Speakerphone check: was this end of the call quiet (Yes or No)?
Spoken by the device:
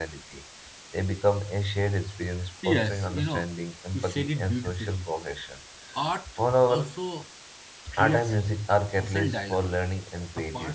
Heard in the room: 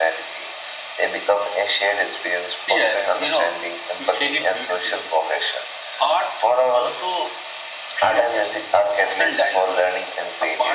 Yes